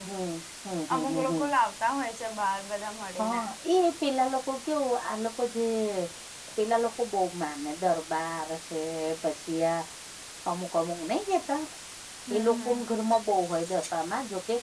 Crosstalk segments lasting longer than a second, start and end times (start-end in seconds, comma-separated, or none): none